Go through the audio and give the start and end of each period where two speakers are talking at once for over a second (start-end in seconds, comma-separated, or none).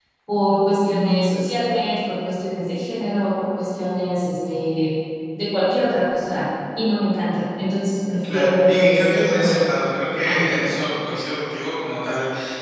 8.2-9.7